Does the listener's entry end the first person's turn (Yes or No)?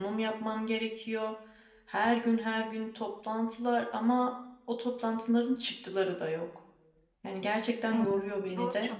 Yes